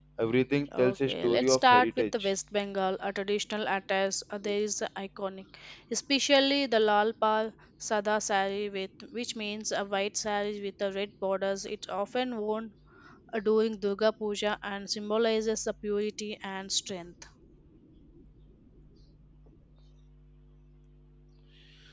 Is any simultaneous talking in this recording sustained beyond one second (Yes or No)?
Yes